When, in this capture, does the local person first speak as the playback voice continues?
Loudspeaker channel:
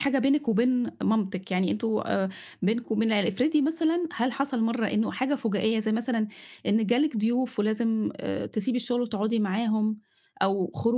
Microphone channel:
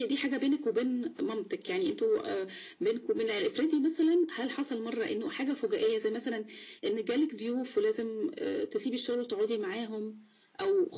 none

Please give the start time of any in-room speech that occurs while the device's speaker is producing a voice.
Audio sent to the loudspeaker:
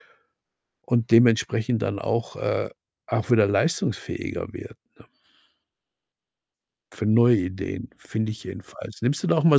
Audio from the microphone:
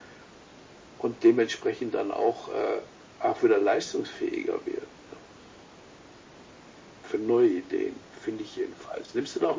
none

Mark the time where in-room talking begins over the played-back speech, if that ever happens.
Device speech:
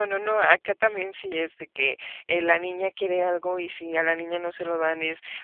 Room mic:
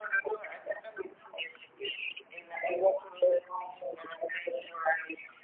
none

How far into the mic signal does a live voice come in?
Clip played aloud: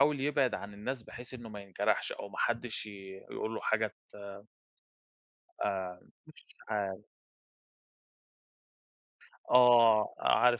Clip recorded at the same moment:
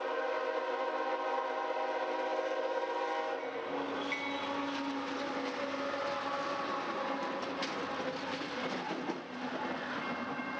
none

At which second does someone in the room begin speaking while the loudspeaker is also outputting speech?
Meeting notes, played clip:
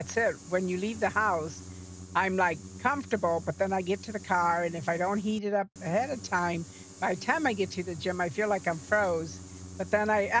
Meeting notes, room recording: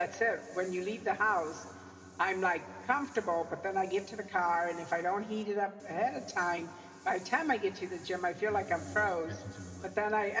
8.4 s

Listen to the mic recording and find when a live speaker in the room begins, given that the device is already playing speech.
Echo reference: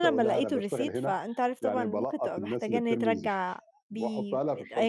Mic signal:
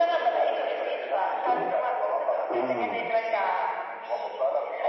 1.5 s

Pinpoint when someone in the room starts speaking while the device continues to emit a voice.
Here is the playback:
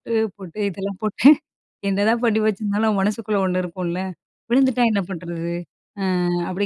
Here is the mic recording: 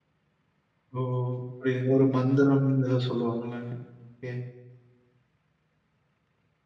0.9 s

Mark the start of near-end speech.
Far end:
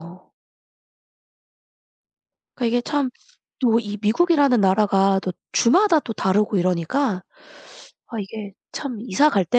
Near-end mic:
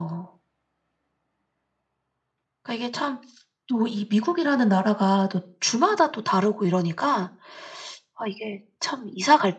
none

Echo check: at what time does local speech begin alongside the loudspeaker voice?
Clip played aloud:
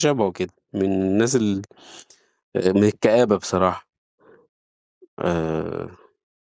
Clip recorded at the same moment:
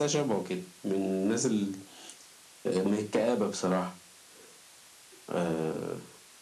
none

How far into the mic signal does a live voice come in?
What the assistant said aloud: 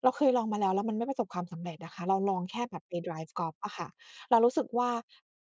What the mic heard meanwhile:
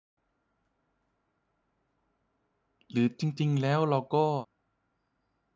2.9 s

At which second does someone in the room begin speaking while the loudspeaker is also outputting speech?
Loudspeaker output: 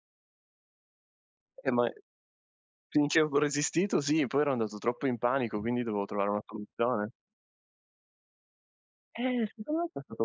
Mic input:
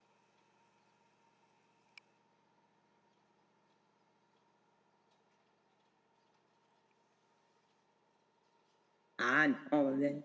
9.2 s

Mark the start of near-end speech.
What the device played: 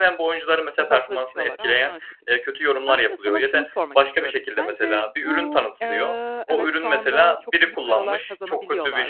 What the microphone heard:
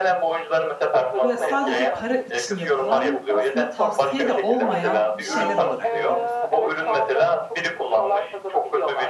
1.2 s

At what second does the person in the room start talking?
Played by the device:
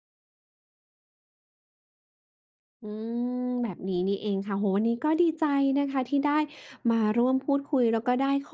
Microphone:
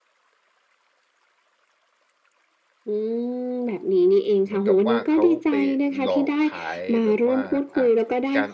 4.4 s

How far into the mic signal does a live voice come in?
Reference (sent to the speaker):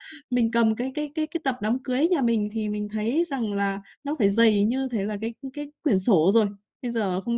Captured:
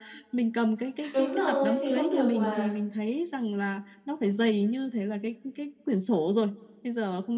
1.1 s

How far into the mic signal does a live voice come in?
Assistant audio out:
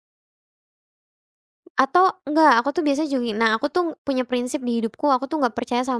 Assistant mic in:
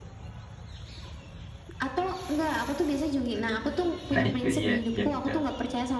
4.1 s

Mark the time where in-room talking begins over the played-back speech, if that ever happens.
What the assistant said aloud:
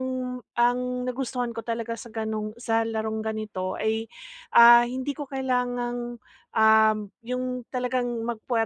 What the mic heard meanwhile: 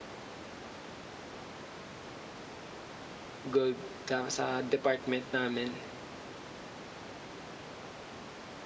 3.5 s

